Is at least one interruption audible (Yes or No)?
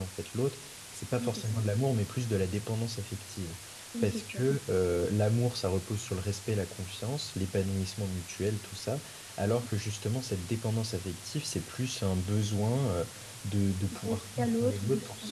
Yes